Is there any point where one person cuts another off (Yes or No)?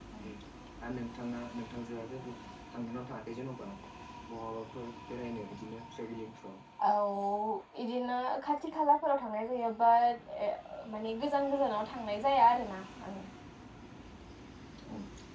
No